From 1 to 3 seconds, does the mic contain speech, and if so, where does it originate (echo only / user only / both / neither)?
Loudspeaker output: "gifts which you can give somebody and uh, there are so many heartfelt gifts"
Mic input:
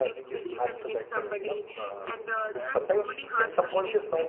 both